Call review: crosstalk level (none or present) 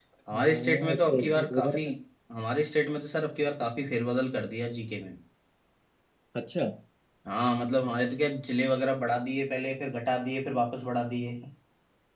present